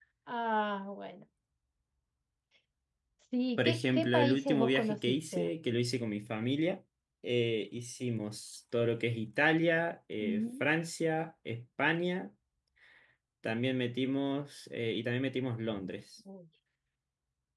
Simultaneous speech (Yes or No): Yes